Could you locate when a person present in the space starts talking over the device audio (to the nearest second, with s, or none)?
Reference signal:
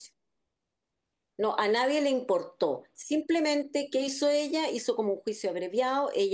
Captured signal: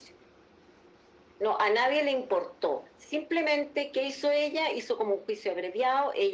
none